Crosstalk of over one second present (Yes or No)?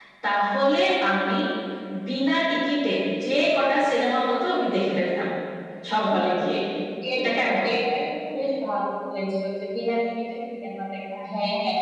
No